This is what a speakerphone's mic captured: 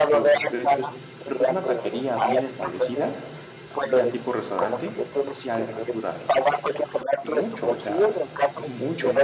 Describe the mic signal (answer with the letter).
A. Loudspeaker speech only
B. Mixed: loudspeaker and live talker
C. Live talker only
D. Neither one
B